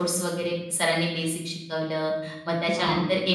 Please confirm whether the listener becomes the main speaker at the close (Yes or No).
No